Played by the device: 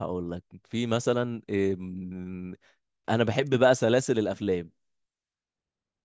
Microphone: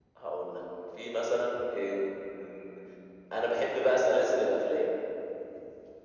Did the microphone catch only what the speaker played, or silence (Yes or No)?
Yes